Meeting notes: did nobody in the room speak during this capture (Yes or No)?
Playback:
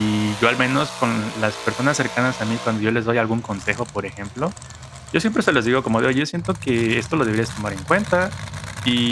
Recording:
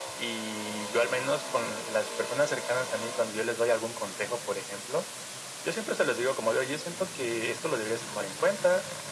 Yes